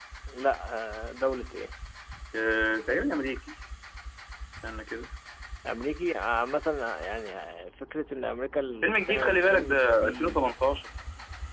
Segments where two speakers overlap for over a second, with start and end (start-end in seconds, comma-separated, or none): 8.8-10.4